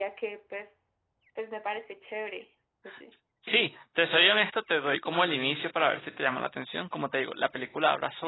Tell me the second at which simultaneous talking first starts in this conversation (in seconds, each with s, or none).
none